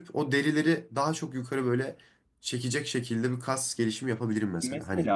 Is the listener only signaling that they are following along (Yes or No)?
No